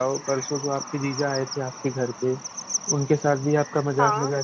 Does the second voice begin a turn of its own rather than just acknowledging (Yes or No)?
No